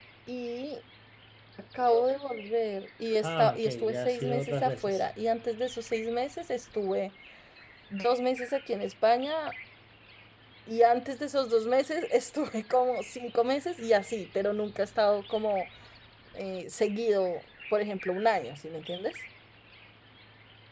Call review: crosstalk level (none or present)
present